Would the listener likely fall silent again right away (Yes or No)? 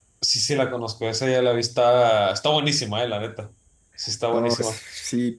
No